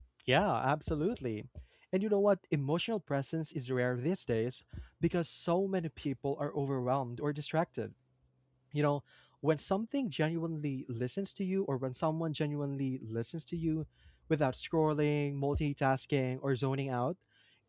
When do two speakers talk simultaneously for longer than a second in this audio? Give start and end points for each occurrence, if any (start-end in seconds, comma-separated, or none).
none